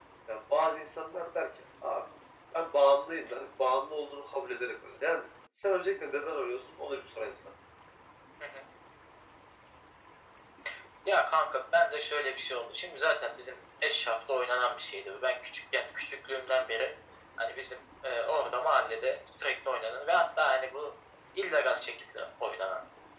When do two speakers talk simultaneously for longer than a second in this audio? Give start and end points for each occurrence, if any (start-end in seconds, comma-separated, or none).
none